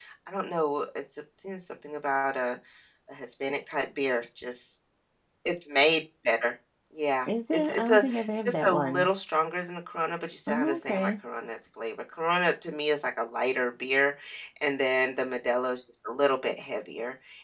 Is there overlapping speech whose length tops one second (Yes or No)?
Yes